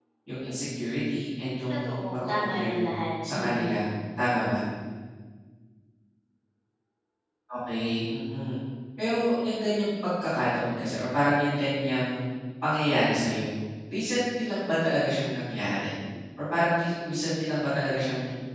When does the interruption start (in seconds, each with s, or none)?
1.7 s